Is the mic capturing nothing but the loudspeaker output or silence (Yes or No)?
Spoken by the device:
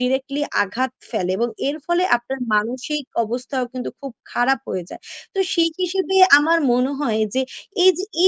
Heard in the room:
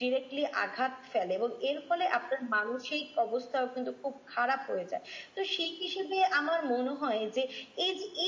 Yes